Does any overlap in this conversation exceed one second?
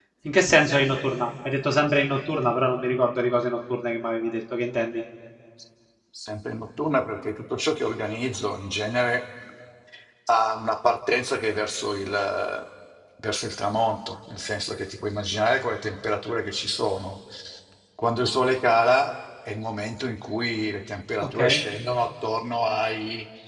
No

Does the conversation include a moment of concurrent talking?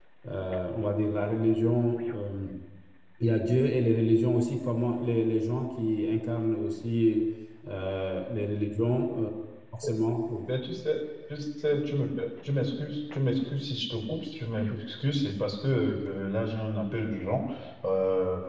No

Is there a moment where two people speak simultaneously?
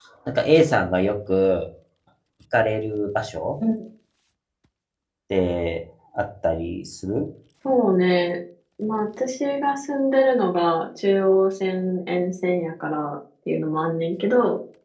No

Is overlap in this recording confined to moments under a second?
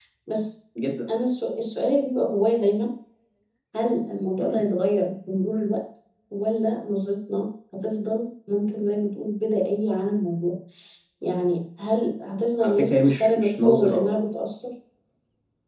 No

